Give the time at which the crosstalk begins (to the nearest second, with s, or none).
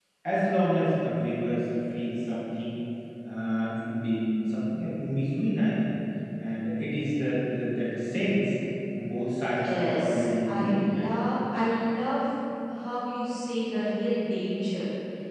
9 s